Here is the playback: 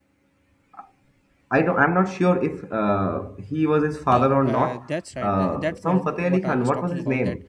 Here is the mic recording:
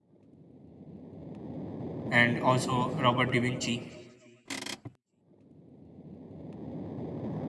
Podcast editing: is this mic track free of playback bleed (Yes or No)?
Yes